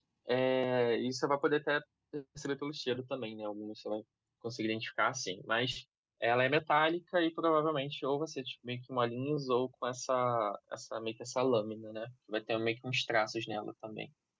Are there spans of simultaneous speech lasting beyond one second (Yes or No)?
No